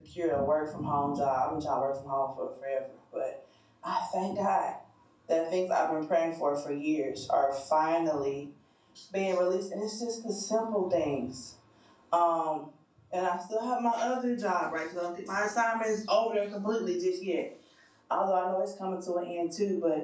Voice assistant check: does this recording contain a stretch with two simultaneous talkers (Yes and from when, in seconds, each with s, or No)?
No